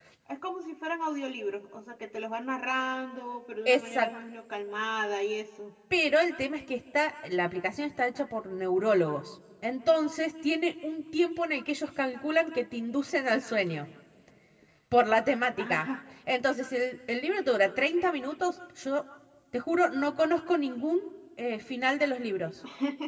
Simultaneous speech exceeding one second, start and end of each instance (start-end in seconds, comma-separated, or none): none